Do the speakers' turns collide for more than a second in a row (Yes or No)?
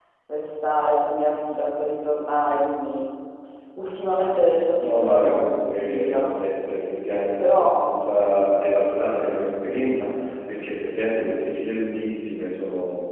Yes